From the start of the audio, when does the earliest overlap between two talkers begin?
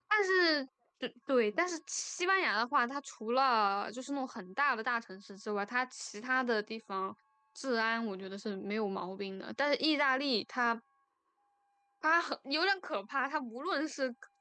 none

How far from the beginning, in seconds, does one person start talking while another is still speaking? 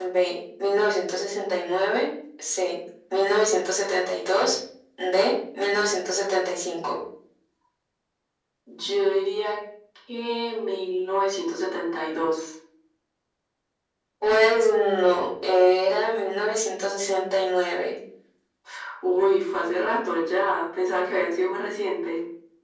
none

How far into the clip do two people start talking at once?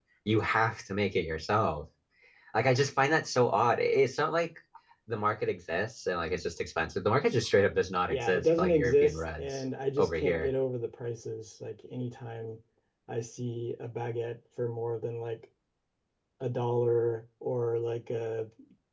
8.1 s

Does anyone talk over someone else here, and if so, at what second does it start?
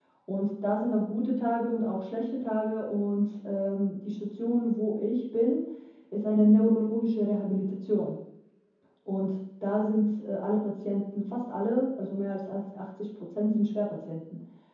none

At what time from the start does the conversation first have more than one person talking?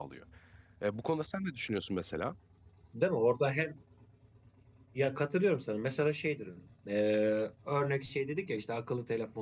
none

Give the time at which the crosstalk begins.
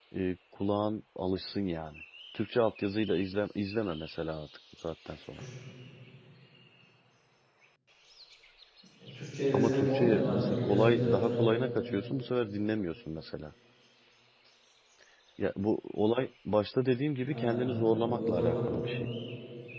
9.5 s

